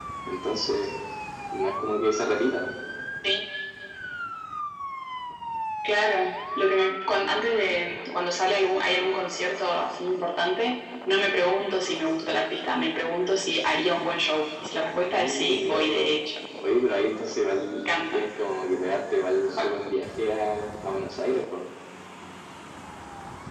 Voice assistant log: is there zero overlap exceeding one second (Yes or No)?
No